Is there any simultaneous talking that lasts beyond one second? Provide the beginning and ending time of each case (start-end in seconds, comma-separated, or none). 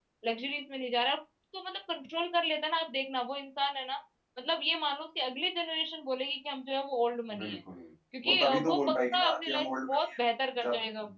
8.2-10.0